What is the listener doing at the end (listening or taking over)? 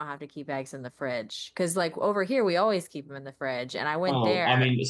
taking over